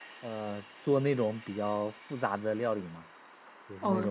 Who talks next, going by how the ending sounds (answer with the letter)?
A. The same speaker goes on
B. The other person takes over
B